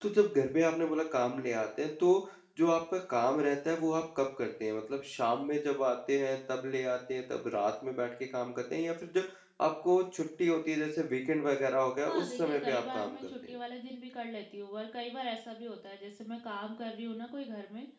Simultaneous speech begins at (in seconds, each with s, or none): 12.1 s